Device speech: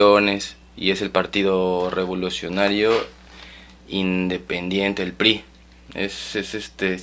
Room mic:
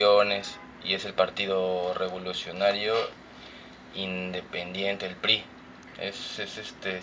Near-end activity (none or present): none